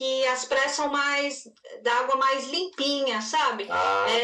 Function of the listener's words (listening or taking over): listening